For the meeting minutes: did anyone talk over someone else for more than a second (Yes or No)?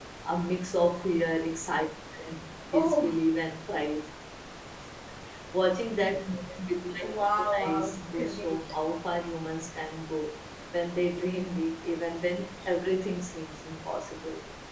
Yes